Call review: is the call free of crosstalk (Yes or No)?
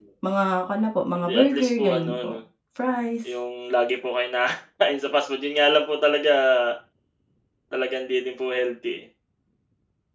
No